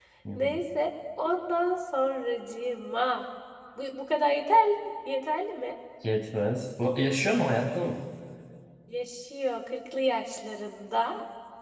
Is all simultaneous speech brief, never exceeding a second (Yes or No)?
Yes